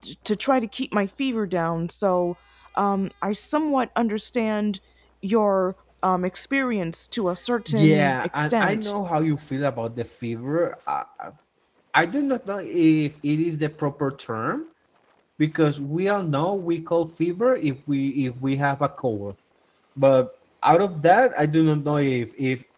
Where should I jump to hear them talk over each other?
7.7 s

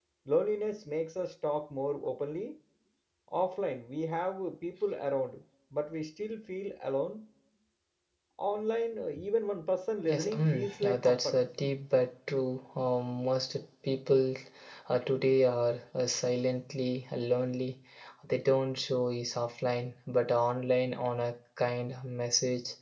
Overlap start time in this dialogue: 10.0 s

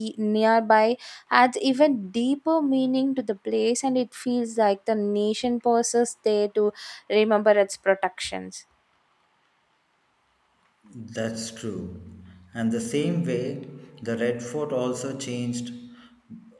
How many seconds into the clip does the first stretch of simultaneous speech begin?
none

